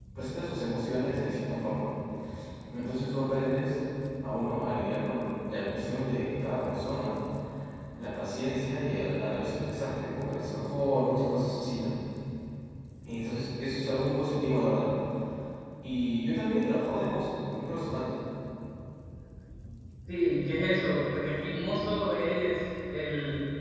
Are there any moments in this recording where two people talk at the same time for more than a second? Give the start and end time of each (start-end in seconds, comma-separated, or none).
none